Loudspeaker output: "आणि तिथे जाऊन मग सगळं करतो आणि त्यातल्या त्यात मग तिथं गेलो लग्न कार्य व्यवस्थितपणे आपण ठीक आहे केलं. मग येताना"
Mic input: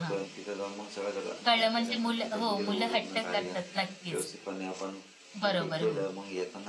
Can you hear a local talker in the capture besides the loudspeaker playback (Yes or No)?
Yes